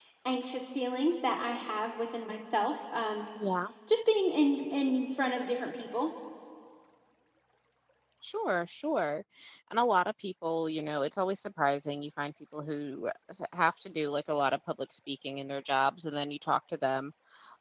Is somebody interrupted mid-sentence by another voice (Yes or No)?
No